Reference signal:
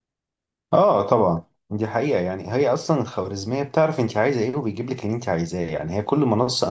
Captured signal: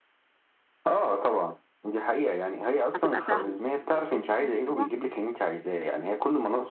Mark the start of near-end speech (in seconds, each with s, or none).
2.9 s